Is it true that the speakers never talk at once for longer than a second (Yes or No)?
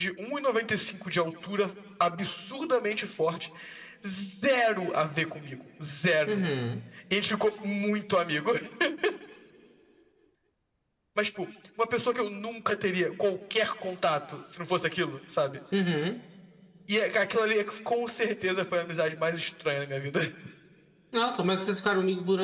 Yes